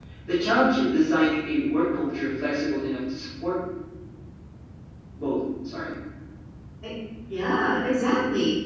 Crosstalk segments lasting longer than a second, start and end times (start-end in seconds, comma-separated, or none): none